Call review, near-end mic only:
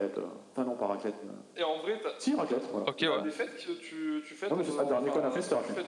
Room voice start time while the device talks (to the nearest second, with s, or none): 3 s